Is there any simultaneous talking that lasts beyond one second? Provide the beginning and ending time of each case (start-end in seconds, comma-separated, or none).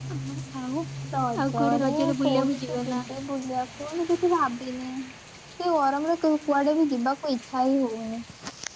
1.5-3.0